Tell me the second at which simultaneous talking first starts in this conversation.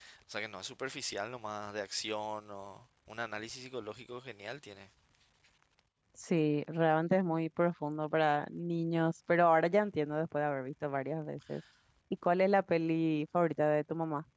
none

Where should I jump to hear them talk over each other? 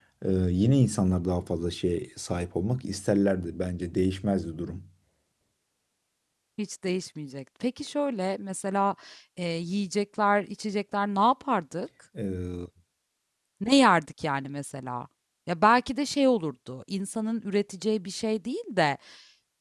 none

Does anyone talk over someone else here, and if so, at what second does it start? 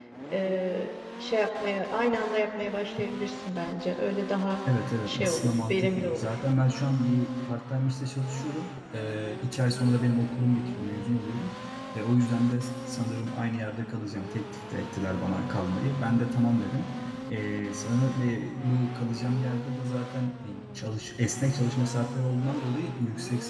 5.0 s

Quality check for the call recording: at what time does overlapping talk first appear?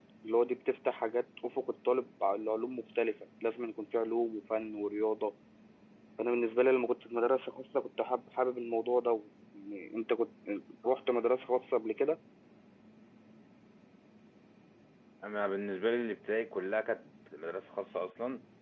none

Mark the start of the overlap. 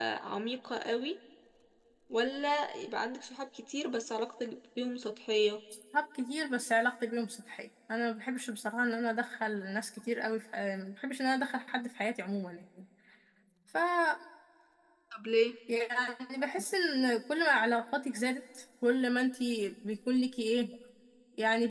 none

